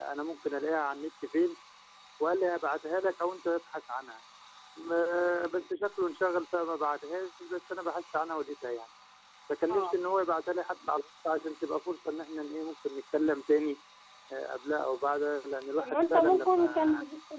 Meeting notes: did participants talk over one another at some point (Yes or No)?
Yes